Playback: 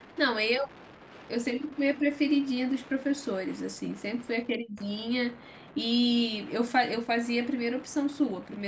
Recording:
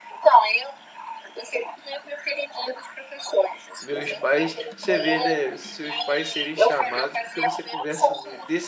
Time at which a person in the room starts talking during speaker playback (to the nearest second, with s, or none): 4 s